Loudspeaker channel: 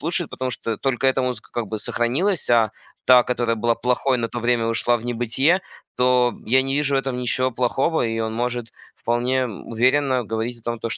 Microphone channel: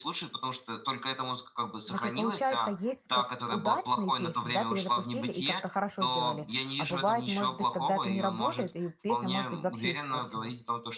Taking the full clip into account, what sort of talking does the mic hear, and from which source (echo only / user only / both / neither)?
both